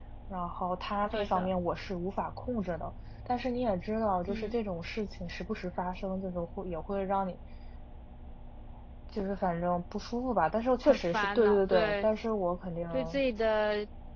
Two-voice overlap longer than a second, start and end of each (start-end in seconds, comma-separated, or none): 10.8-12.1